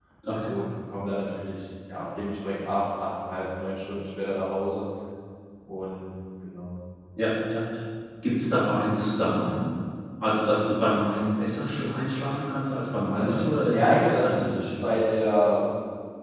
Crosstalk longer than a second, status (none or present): present